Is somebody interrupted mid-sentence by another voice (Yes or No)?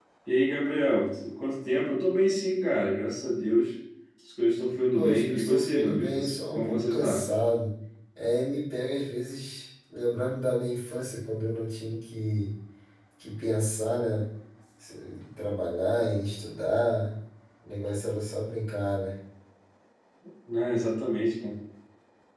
Yes